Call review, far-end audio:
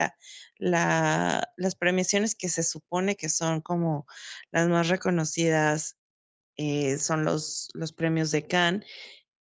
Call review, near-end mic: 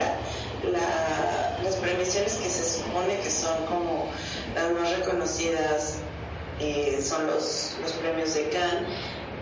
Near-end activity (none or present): none